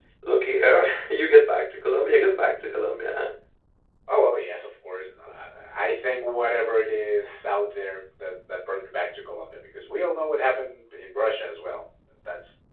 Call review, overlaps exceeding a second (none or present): none